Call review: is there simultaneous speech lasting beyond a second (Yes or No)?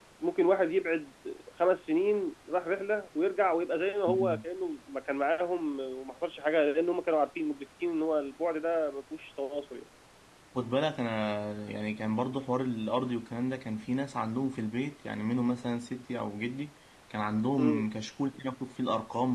No